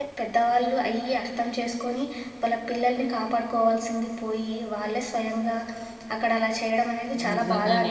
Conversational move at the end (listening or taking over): taking over